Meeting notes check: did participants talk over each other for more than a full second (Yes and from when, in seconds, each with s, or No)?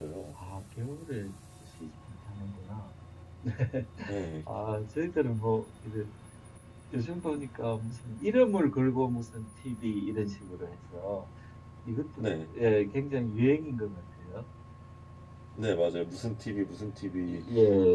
No